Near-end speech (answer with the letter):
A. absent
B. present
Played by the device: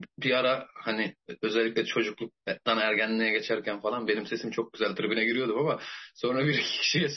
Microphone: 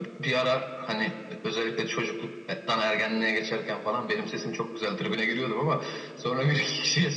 A